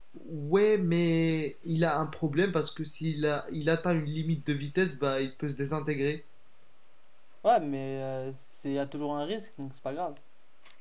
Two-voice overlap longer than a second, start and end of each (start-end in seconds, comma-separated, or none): none